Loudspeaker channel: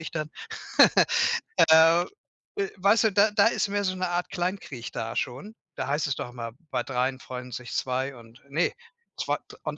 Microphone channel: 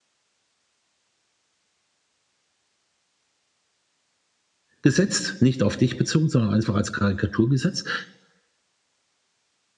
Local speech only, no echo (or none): gesetzt, nicht auf dich bezogen, sondern einfach als Karikatur gesetzt.